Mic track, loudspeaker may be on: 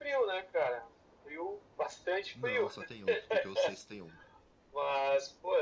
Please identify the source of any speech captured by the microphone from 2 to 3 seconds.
both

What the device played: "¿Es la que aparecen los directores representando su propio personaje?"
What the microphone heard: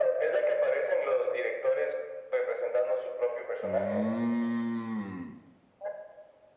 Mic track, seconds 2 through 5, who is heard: both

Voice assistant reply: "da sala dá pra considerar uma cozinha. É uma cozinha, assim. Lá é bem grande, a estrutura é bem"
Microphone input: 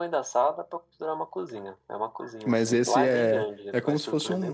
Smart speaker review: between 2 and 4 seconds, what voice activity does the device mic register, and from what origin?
both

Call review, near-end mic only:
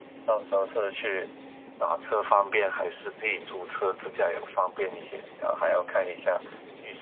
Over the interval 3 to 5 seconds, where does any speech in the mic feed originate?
echo only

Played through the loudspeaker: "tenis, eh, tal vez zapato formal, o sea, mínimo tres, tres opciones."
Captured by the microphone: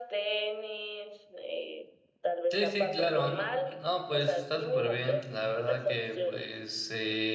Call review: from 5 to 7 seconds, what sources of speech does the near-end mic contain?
both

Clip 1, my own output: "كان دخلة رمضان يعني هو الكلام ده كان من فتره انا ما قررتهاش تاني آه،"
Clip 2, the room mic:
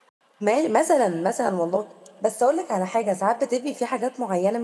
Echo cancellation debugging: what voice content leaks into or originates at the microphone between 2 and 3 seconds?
user only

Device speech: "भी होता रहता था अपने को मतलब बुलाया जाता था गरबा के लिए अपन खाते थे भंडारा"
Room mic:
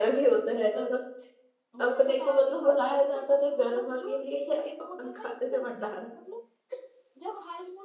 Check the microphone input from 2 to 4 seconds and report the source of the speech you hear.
both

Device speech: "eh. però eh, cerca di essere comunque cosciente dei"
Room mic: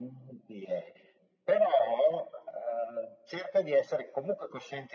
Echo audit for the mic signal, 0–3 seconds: echo only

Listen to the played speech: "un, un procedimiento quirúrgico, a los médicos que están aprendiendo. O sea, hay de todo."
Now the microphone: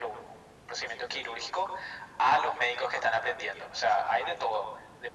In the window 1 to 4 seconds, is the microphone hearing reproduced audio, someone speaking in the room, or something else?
echo only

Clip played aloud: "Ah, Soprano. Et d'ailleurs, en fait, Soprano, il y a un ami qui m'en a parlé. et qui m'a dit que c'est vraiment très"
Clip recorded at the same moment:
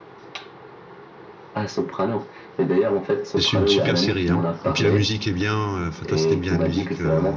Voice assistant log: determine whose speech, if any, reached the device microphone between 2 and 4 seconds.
both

